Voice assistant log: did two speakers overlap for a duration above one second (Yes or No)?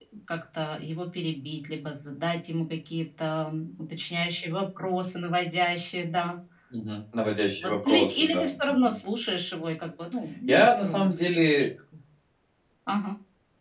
Yes